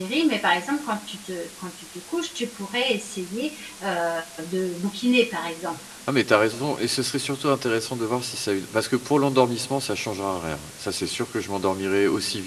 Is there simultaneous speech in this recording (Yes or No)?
No